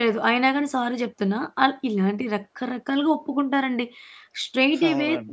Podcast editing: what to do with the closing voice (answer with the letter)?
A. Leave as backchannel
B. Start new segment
A